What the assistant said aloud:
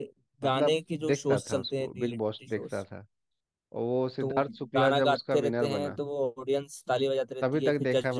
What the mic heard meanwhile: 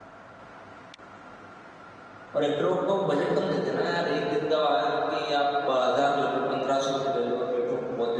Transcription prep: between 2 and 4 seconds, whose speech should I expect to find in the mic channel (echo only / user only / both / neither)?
user only